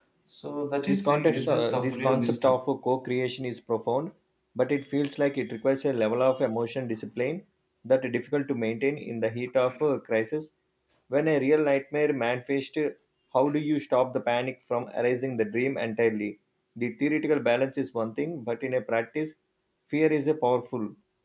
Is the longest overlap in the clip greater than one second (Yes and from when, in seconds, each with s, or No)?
Yes, from 0.9 s